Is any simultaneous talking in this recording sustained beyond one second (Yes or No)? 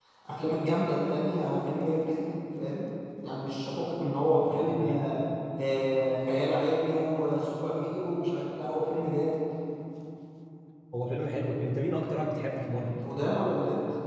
No